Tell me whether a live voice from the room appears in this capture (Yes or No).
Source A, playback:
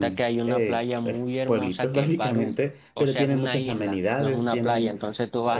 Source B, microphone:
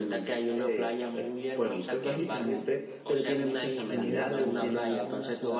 Yes